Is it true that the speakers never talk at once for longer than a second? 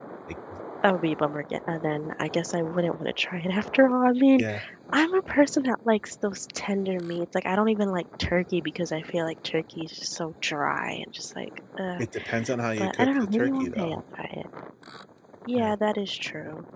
No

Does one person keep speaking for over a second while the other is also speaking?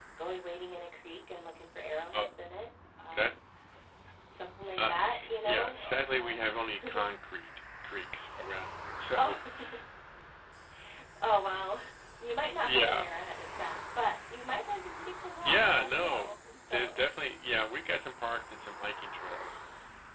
Yes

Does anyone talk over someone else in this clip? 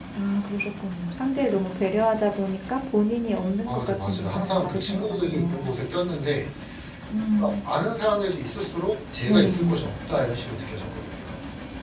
Yes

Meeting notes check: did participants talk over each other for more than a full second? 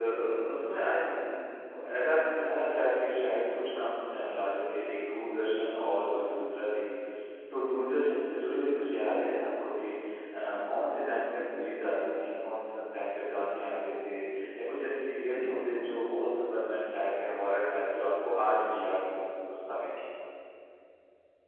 No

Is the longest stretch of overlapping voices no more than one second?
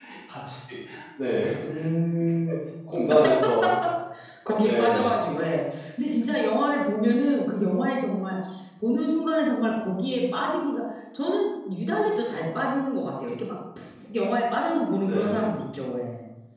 Yes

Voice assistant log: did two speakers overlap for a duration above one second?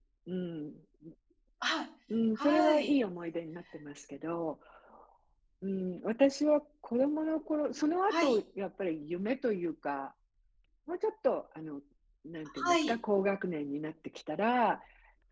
No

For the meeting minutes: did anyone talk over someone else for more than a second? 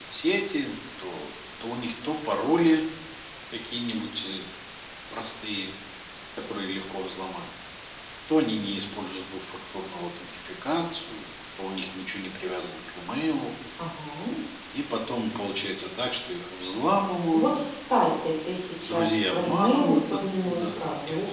Yes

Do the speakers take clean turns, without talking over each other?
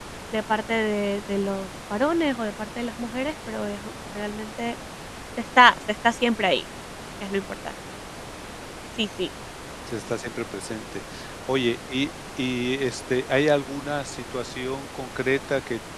Yes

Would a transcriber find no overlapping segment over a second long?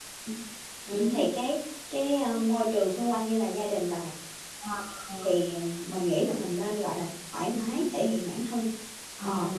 Yes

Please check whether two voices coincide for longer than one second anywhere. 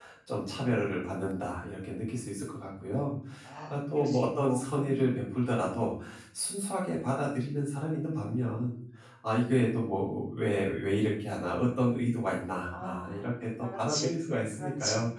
Yes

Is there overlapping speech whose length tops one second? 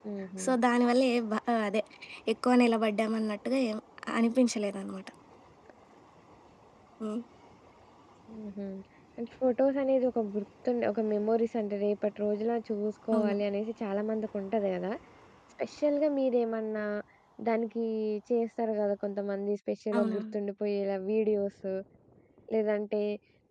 No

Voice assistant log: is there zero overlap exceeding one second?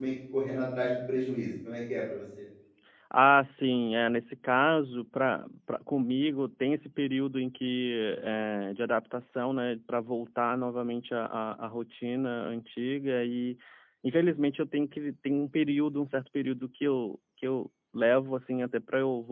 Yes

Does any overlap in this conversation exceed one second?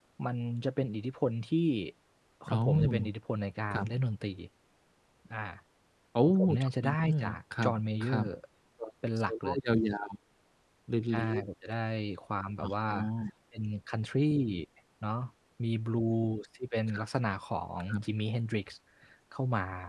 Yes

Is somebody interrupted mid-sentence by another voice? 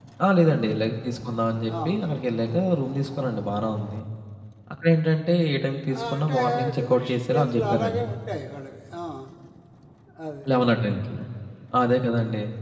Yes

